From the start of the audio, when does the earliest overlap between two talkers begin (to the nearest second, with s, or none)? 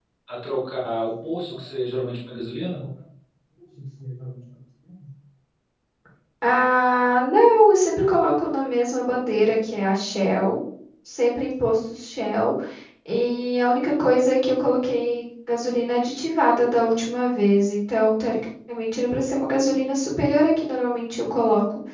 none